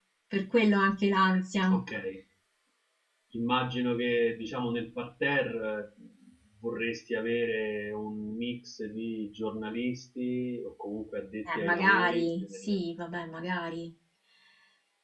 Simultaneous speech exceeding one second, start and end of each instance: 11.6-12.9

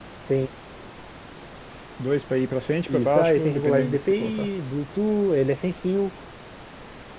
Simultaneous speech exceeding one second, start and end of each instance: 2.9-4.5

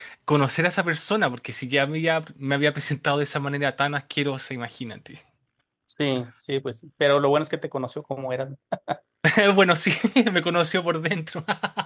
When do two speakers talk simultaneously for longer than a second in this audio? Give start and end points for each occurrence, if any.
none

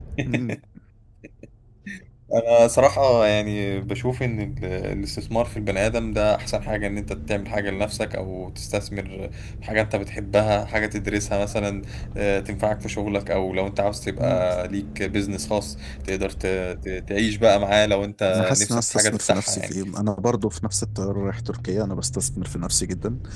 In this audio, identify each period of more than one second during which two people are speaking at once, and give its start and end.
18.3-19.7

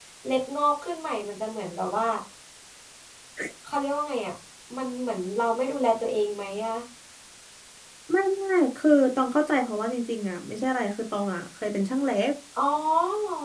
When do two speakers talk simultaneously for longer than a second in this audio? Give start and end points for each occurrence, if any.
none

